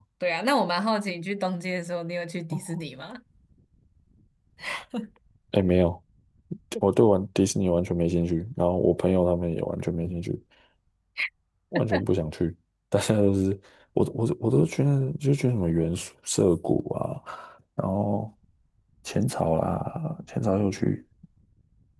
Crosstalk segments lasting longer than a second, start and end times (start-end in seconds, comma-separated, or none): none